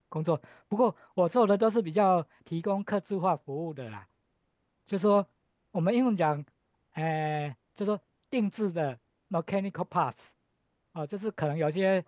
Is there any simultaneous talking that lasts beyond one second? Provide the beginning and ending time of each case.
none

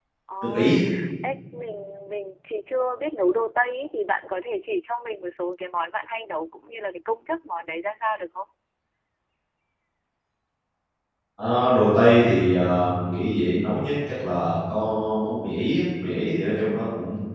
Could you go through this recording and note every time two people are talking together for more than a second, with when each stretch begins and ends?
none

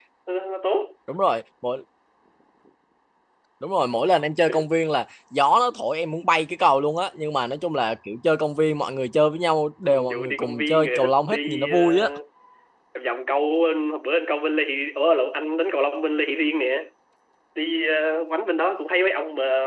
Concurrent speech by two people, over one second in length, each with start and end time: 9.8-11.8

